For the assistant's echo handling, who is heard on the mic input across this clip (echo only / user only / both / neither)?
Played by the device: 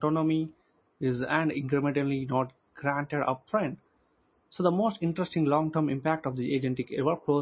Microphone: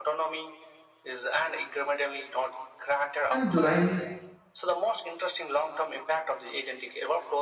both